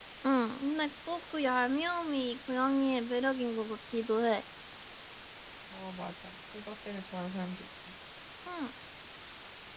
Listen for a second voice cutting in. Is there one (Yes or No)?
No